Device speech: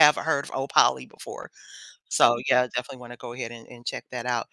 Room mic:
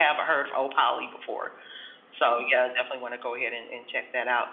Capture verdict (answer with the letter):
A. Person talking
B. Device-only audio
B